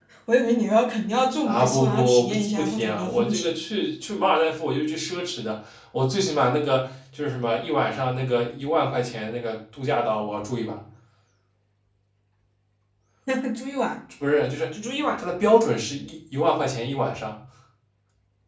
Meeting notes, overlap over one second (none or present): present